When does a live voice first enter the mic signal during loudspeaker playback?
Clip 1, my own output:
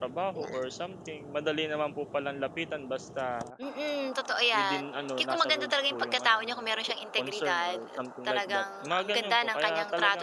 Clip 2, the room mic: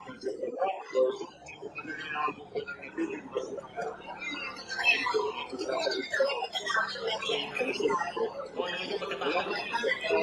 7.3 s

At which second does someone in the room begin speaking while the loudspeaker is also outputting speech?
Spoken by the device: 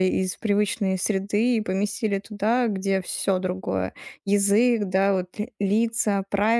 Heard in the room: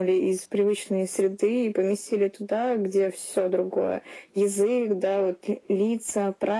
none

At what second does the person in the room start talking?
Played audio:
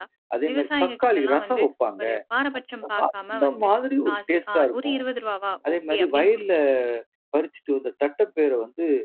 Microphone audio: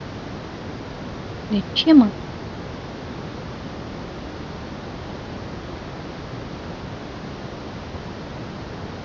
1.5 s

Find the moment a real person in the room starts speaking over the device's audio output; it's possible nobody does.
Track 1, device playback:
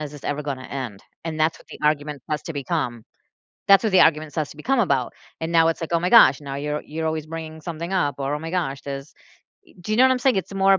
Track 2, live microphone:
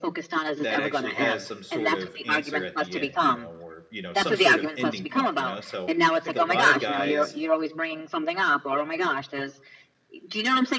0.6 s

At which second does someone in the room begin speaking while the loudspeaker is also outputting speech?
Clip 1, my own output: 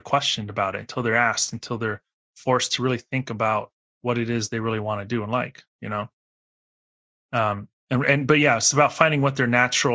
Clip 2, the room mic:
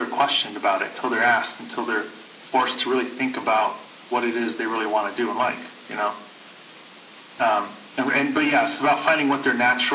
none

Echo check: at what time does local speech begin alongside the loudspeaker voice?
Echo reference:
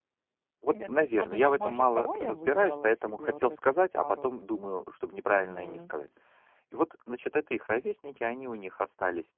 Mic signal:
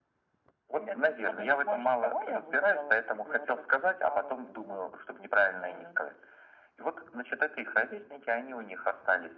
none

